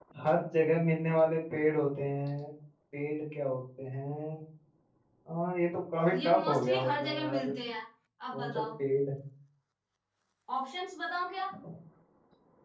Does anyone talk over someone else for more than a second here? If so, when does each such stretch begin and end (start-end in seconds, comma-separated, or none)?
6.1-7.5